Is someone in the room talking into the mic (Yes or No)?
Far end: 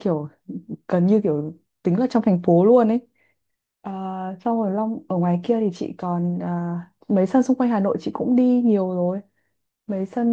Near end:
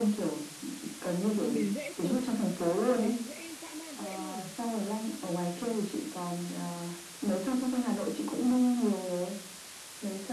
Yes